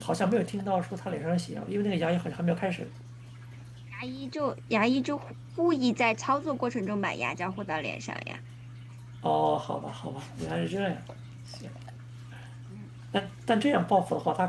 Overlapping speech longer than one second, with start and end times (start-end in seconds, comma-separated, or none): none